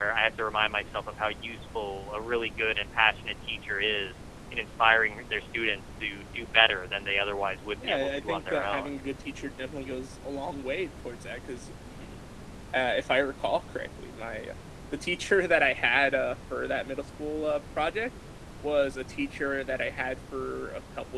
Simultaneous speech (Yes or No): Yes